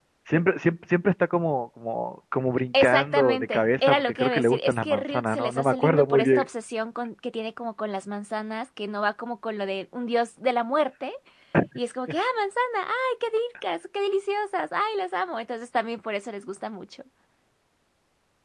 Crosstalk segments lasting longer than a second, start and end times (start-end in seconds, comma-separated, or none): 2.8-6.5